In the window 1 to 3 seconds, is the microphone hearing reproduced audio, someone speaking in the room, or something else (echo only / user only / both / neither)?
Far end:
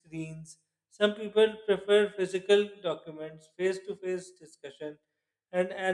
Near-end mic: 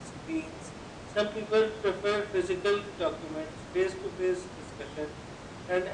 echo only